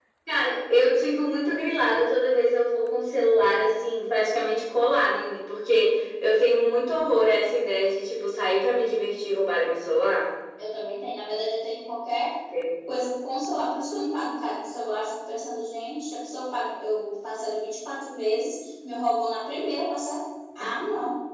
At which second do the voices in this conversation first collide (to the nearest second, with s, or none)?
none